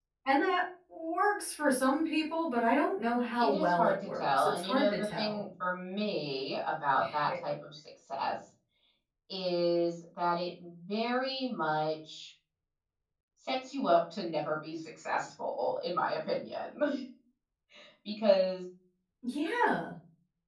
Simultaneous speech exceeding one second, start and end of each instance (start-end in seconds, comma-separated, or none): 3.1-5.4